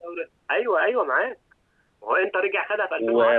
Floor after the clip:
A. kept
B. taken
B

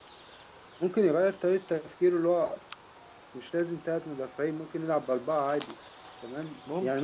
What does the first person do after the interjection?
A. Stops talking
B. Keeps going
B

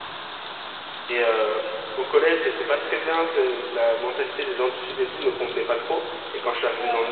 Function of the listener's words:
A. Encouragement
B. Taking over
A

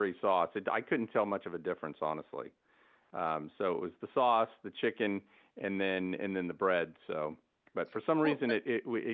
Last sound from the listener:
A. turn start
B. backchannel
B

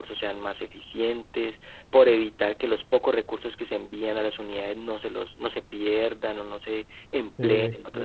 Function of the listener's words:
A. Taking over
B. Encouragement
A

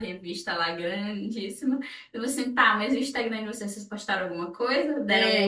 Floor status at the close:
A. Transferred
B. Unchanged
A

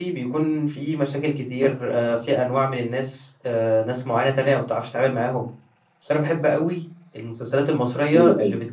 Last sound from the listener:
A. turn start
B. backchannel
B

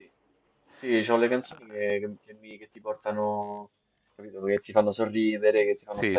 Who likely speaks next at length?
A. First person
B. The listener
B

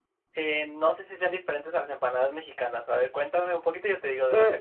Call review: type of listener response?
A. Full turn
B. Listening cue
A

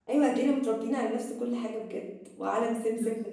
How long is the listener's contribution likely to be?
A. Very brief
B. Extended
A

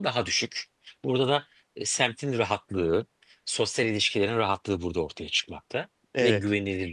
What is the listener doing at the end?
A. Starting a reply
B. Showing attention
B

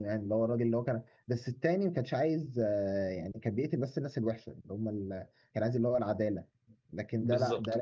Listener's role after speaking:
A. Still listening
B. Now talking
A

